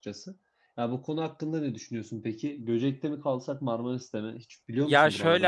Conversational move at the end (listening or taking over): taking over